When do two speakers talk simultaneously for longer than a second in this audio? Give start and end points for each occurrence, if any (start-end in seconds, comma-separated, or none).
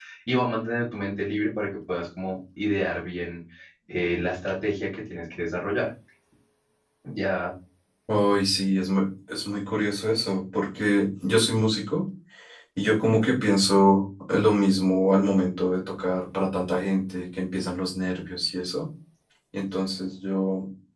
none